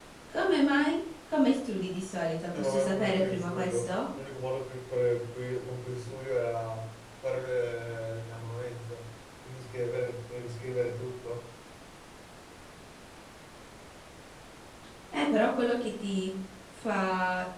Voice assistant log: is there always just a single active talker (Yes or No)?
No